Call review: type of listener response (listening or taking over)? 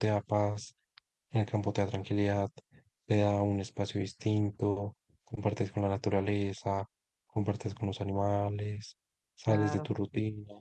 listening